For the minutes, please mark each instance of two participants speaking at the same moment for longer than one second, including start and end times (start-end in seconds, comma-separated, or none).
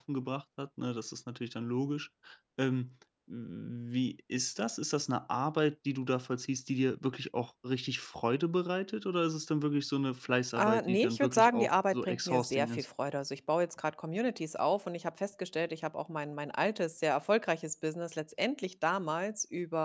10.6-12.8